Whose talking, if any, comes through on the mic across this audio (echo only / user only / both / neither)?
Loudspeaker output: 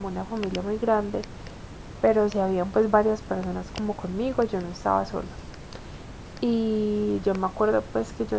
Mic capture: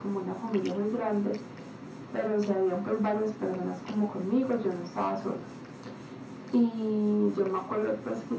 echo only